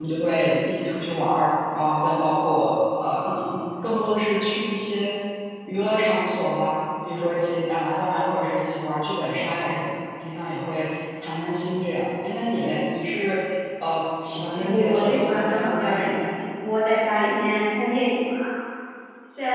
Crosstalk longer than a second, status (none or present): present